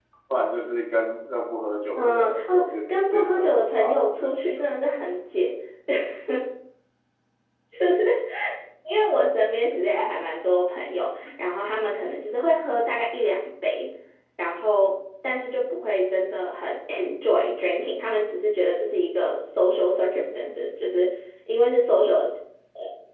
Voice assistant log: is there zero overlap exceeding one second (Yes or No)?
No